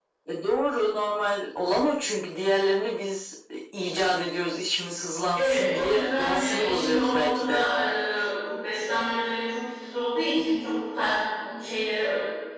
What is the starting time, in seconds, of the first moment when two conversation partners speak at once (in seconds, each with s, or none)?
5.4 s